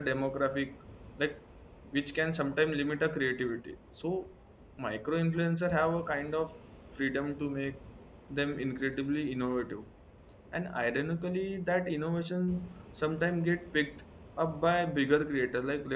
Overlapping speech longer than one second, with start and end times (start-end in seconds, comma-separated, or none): none